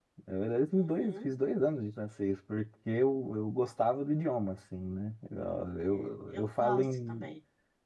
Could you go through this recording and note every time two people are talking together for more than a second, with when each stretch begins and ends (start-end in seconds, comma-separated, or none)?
5.9-7.3